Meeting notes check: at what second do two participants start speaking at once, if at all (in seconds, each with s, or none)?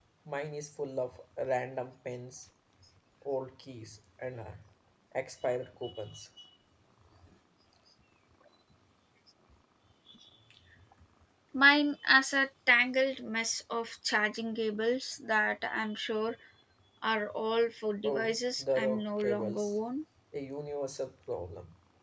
18.0 s